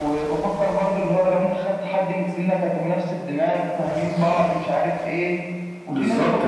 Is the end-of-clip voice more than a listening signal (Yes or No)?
No